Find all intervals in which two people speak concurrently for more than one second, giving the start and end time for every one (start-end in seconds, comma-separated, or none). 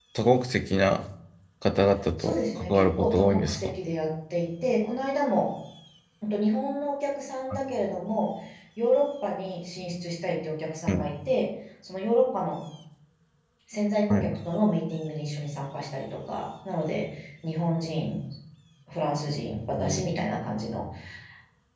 2.2-3.8